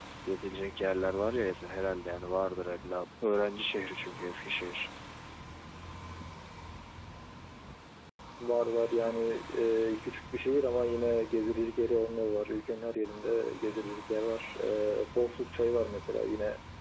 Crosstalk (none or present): none